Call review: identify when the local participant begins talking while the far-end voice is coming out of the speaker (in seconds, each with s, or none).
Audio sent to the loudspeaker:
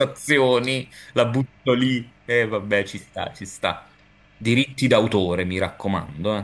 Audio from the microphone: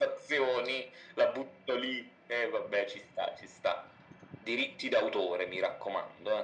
none